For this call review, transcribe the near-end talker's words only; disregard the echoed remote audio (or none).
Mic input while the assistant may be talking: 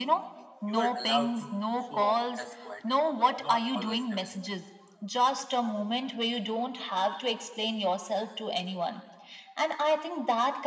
You are allowed to show up as quieter, not always available.